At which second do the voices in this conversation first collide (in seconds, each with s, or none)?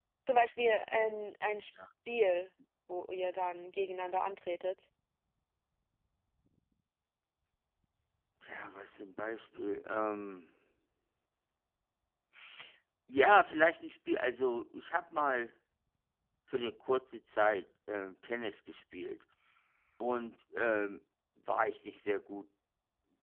none